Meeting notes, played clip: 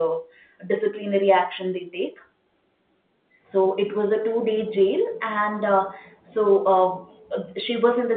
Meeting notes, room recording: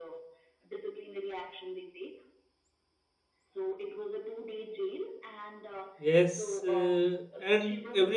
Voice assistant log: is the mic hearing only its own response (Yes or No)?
No